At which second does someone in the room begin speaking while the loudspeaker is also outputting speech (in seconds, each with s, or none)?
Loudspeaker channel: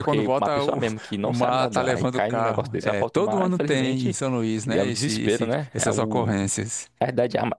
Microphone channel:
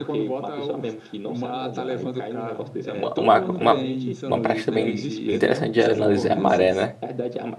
2.9 s